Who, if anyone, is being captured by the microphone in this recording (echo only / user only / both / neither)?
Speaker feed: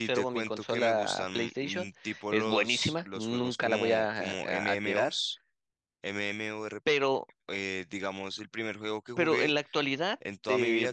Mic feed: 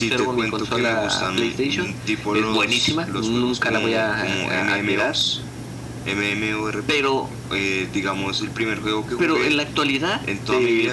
echo only